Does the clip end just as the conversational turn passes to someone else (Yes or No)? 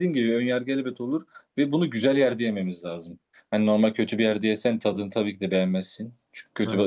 No